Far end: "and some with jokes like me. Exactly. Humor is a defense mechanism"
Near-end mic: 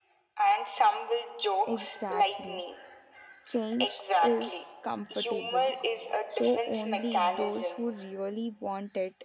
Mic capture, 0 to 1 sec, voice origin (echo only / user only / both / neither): echo only